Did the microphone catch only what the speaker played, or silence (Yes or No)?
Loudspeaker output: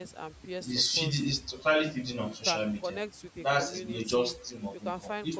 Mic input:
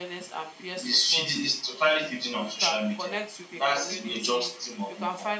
Yes